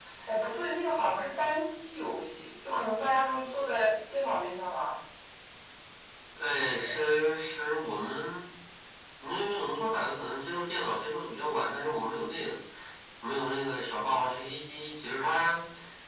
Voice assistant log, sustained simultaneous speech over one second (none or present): none